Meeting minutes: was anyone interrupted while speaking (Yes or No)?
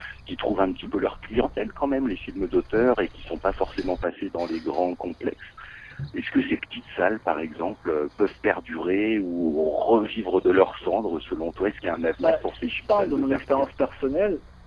Yes